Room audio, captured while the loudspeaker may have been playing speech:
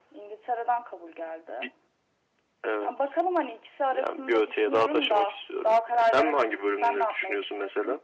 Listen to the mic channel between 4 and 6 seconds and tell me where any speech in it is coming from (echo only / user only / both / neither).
echo only